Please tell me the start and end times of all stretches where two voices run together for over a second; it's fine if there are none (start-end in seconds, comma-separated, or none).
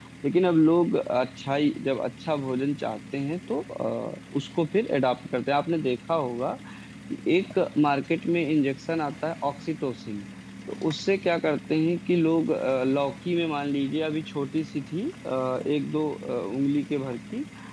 none